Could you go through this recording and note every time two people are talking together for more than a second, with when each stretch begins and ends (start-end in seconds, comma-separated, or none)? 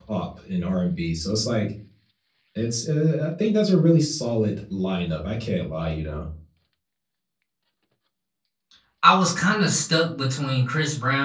none